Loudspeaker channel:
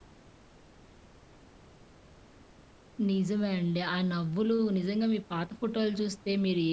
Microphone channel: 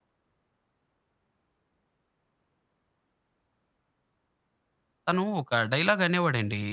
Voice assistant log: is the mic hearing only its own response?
No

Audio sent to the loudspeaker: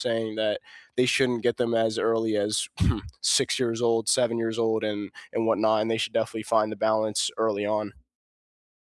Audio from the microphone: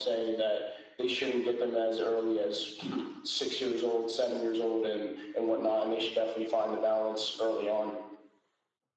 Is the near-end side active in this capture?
No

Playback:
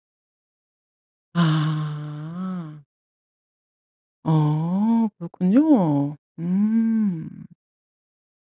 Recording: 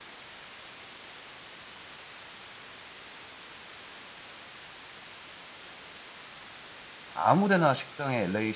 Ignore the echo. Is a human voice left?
Yes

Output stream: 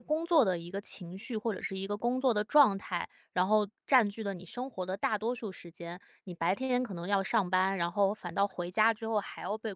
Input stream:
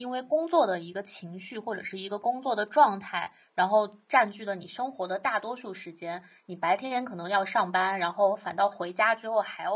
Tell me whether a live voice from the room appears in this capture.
No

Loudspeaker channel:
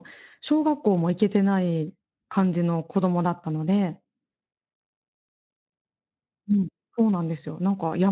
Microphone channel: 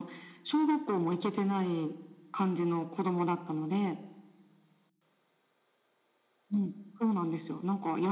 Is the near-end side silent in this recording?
Yes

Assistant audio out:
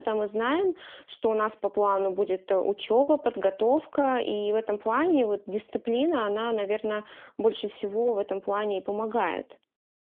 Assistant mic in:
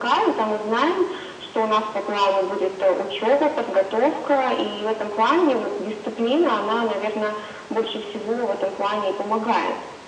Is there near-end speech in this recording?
No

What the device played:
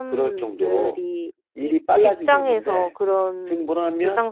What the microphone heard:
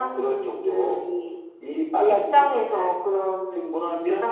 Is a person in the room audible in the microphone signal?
No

